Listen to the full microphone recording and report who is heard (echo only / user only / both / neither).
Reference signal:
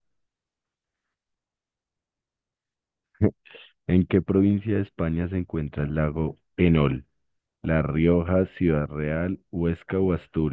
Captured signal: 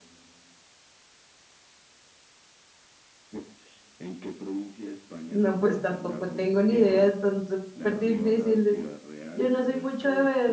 both